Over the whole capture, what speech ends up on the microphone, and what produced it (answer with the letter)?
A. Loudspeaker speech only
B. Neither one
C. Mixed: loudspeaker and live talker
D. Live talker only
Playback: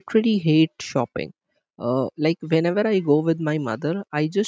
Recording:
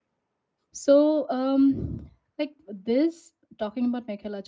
D